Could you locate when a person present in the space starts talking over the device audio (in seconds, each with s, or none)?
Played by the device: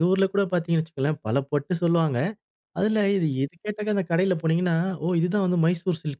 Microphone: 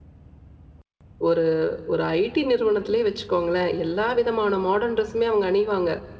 1.3 s